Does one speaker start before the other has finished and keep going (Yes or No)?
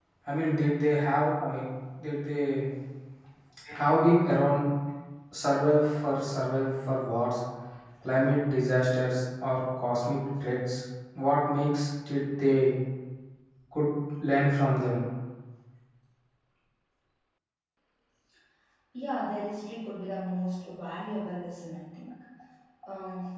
No